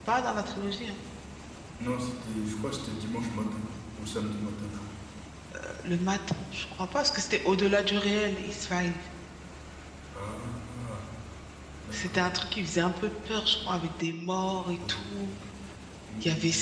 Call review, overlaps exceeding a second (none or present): none